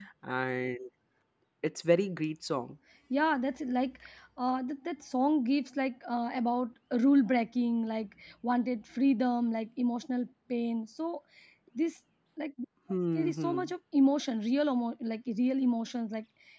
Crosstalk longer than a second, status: none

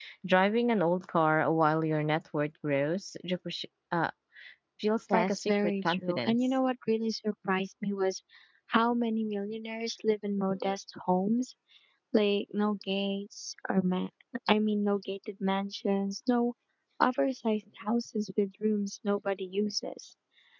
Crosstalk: present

